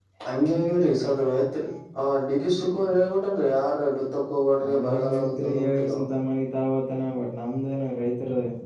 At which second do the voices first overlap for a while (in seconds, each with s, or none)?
4.6 s